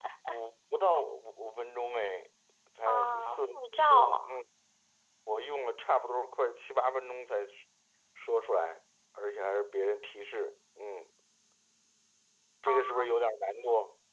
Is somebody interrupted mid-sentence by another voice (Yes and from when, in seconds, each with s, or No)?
Yes, from 2.9 s